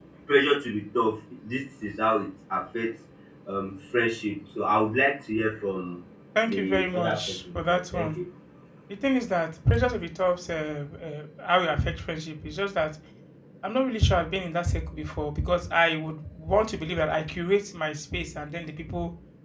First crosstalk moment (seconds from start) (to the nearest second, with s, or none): 6 s